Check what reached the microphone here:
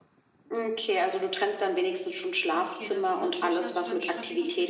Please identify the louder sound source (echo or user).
echo